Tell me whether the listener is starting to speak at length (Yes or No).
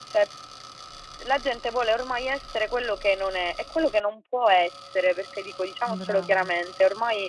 No